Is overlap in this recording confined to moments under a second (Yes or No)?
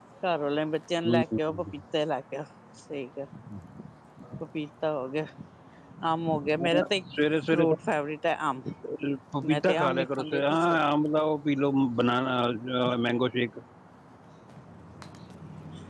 No